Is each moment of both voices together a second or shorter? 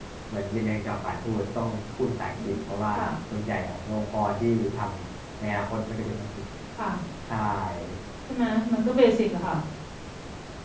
Yes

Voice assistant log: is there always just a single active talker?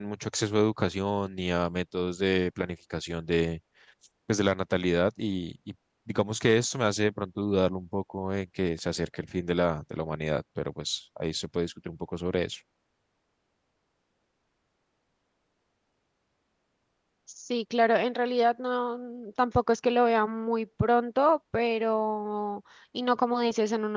Yes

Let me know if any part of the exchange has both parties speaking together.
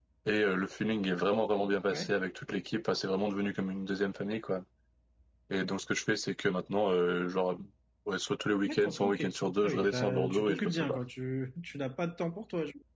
Yes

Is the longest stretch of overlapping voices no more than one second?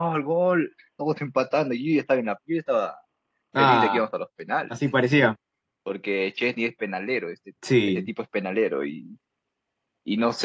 Yes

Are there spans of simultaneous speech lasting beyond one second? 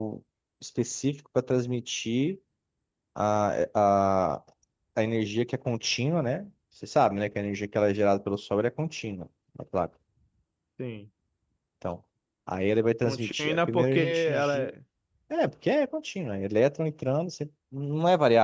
Yes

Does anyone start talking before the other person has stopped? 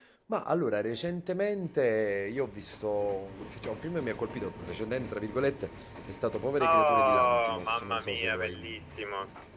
Yes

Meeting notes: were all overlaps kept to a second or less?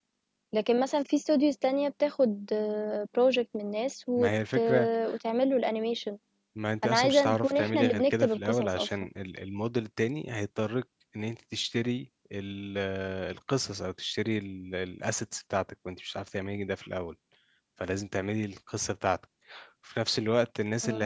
No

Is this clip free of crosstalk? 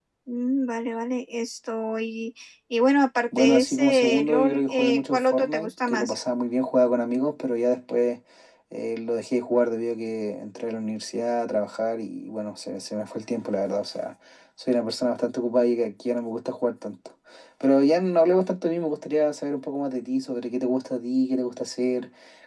No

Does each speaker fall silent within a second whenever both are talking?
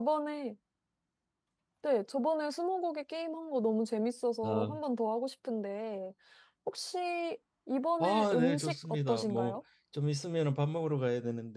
No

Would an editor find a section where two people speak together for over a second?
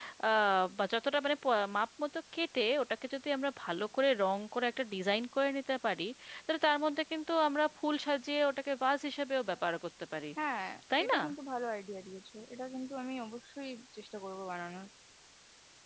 No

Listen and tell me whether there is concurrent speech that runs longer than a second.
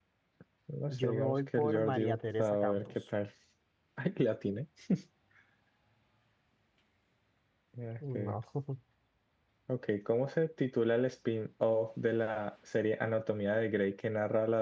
Yes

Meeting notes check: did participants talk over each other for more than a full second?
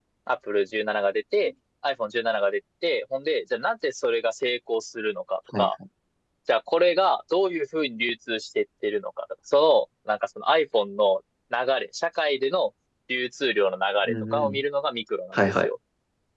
No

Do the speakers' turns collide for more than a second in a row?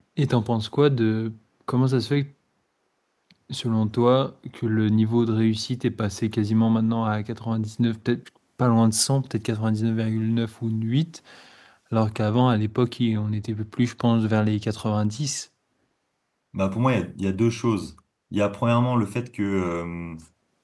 No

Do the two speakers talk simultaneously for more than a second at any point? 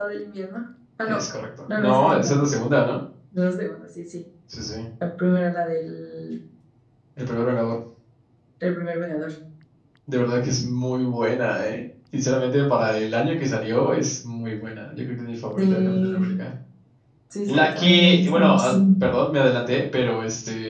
Yes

